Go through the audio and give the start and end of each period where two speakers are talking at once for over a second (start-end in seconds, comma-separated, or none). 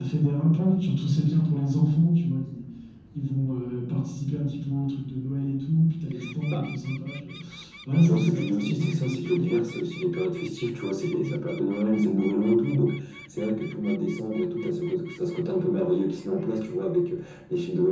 8.1-9.5